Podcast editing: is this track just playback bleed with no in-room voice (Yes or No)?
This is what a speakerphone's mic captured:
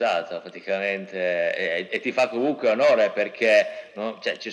Yes